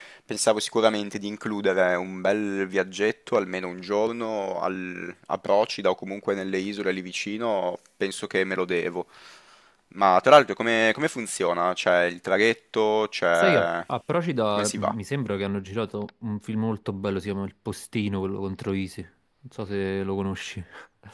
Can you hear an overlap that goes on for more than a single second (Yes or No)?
No